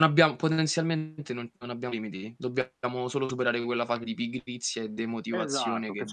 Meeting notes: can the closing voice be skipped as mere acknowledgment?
No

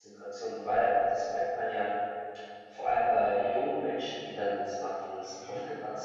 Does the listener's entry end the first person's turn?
No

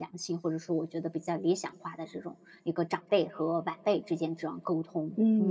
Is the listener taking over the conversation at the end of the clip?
Yes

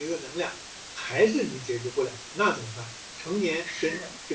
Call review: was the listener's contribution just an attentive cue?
Yes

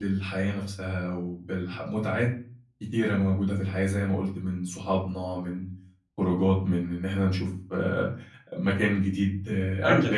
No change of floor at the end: No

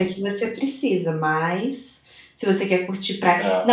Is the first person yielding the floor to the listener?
No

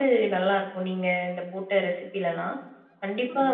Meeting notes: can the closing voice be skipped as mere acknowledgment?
Yes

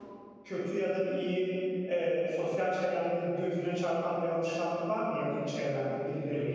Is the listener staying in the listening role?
No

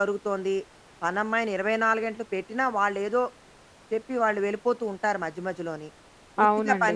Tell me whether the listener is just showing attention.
Yes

